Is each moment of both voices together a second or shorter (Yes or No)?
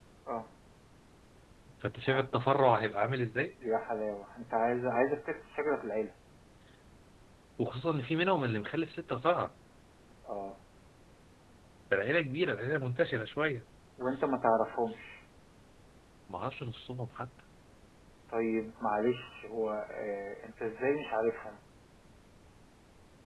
Yes